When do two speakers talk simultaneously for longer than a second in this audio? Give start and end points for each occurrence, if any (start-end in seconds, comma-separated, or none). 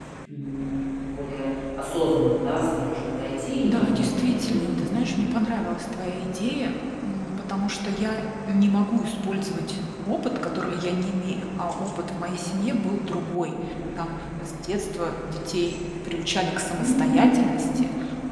3.6-4.9